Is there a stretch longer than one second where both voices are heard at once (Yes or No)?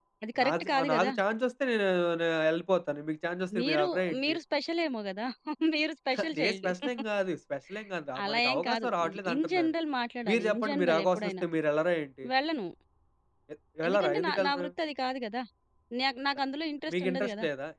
Yes